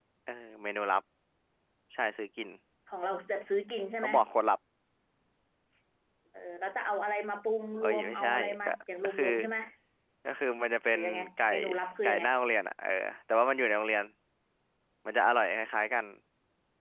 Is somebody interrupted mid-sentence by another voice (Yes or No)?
Yes